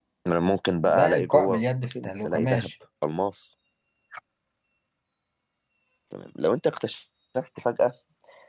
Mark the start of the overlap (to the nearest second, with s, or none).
1 s